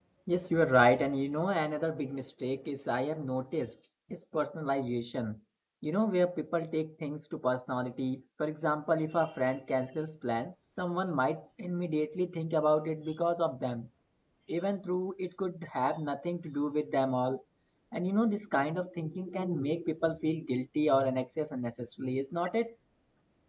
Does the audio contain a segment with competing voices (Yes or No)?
No